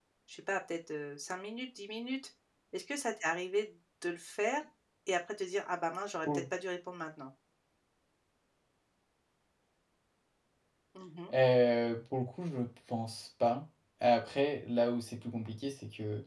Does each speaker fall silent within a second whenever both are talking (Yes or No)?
Yes